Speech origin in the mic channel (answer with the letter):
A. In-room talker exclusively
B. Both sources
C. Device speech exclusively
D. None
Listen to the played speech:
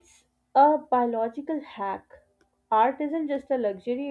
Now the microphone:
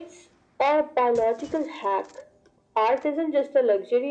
C